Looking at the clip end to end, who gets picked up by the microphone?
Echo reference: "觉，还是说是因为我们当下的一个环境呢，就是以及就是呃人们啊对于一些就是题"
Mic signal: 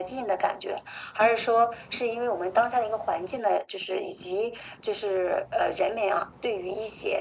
echo only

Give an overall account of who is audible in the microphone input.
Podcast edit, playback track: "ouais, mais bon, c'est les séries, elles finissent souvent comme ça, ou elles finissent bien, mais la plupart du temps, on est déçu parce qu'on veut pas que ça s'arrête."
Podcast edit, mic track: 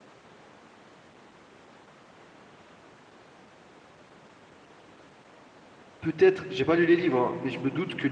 user only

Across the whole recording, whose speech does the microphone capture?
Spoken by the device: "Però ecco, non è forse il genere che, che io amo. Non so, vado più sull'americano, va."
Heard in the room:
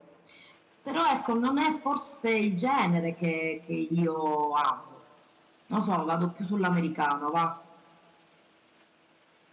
echo only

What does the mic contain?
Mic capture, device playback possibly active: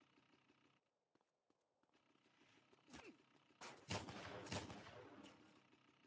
neither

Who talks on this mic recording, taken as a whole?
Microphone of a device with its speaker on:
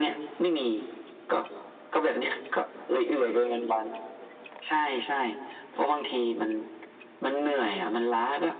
echo only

